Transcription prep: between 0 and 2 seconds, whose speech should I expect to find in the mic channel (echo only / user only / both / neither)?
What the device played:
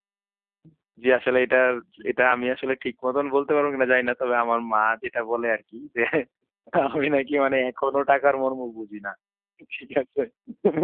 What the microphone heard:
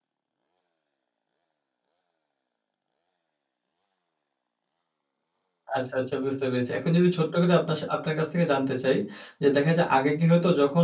neither